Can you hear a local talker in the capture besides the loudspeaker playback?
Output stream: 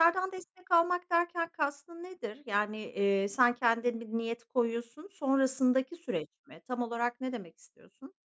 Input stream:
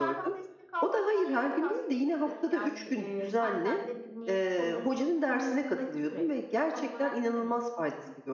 Yes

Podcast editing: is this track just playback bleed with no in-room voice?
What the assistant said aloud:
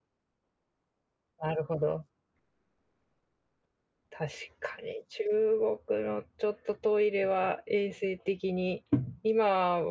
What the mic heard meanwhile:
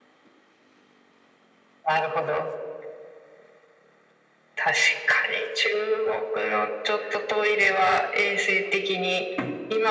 Yes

